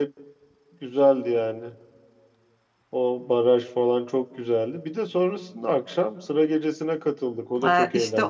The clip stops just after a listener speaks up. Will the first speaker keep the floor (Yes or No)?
No